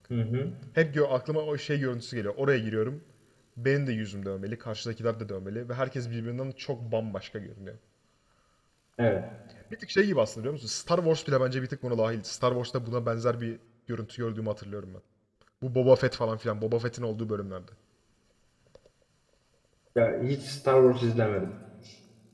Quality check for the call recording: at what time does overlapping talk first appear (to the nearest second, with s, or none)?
none